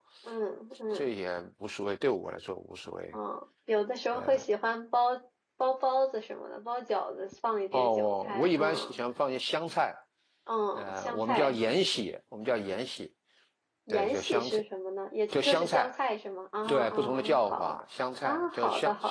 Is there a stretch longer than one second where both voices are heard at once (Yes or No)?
Yes